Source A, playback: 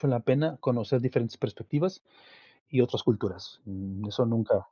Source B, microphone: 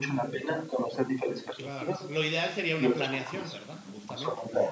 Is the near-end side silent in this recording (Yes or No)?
No